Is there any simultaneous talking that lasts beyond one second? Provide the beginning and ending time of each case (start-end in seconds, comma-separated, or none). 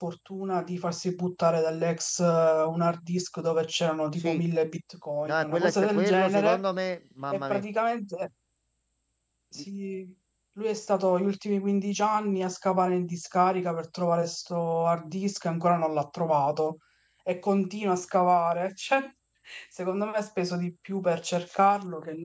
5.2-6.6